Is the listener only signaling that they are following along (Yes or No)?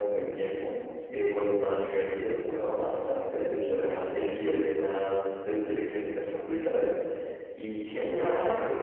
Yes